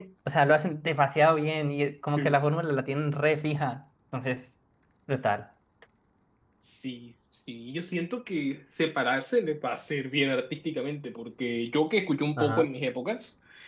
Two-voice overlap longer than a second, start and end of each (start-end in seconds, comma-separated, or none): none